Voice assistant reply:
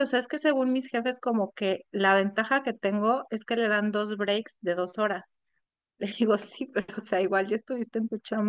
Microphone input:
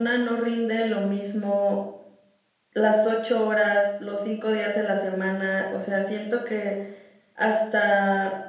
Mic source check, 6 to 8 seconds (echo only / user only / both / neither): user only